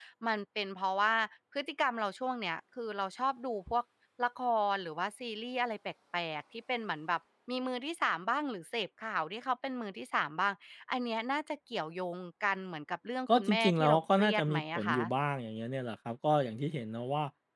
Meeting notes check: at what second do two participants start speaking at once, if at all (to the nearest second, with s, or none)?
13 s